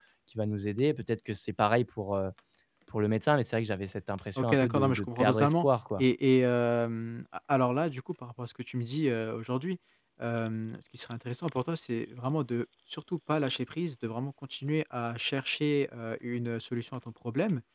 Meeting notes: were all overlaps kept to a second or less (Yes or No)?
No